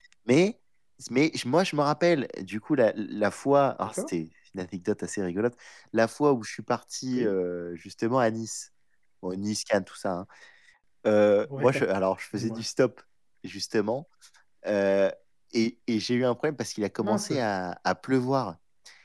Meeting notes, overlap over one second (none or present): none